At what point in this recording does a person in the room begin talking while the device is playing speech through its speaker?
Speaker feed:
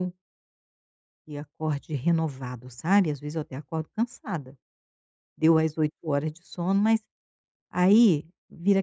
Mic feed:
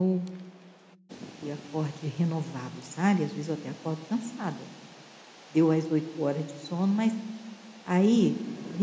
none

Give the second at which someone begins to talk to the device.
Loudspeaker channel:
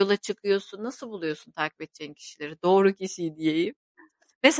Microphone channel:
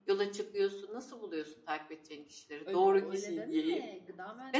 2.7 s

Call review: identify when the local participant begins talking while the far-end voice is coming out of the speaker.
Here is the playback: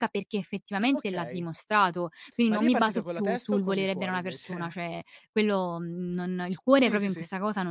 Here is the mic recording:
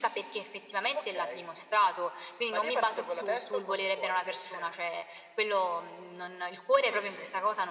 none

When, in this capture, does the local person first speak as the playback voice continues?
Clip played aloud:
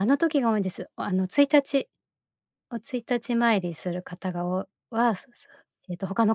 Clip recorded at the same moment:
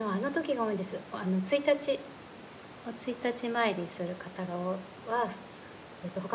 none

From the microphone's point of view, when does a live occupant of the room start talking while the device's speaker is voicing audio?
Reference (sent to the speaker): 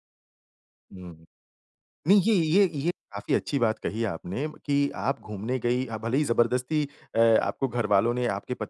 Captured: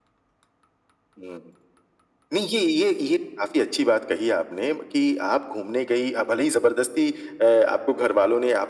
none

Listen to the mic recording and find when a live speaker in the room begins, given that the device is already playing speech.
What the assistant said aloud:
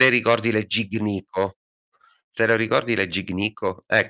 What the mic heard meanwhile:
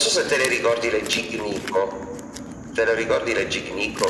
none

